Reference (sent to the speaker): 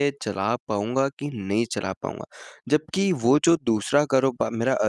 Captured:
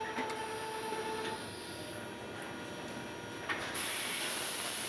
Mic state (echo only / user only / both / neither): neither